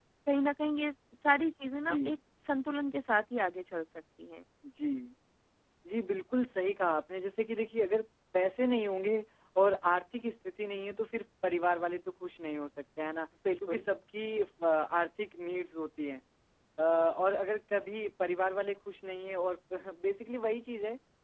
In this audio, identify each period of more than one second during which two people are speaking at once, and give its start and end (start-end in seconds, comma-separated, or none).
none